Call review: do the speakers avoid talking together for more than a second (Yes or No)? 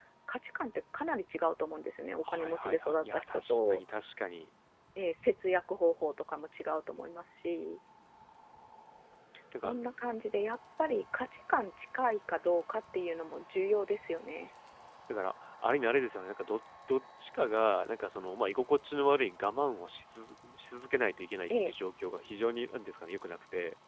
No